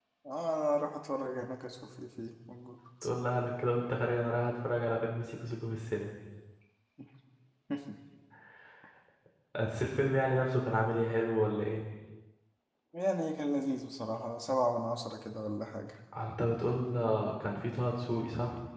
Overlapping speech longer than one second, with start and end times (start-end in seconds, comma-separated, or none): none